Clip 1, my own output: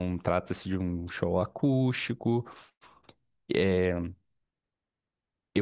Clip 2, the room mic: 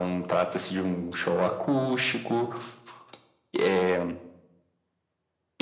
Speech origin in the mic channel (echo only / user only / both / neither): echo only